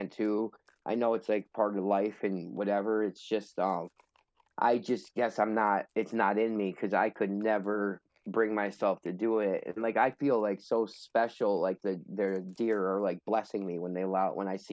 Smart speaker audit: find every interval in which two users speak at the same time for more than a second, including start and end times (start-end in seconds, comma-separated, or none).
none